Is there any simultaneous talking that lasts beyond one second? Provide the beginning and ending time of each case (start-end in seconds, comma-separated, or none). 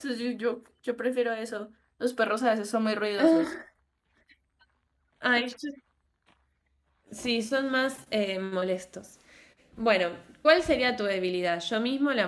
none